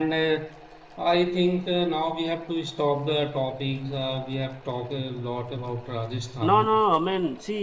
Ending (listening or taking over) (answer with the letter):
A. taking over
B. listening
A